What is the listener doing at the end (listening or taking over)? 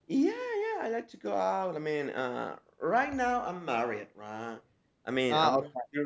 listening